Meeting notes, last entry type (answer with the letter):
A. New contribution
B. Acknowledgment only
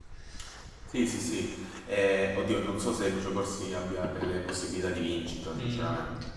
A